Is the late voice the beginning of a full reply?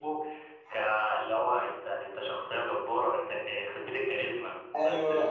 Yes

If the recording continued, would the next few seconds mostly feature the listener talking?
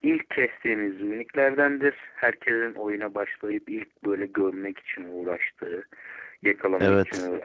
No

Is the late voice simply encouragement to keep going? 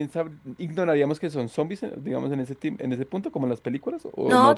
No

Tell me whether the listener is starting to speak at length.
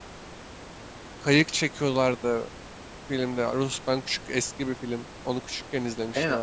Yes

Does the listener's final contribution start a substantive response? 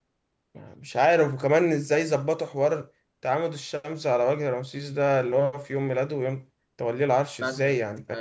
Yes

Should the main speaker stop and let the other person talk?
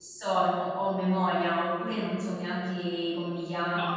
Yes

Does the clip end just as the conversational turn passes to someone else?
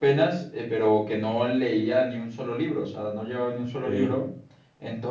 No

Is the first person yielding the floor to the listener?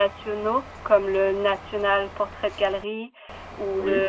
No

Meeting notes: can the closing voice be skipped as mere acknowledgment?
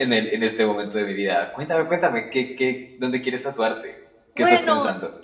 No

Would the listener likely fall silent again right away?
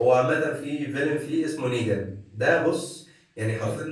Yes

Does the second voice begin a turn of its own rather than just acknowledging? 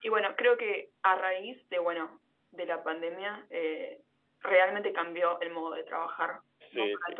Yes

